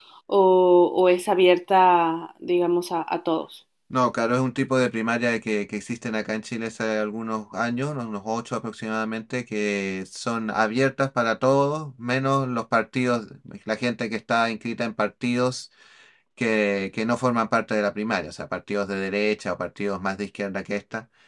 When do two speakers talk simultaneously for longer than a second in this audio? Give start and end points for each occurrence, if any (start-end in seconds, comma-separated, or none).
none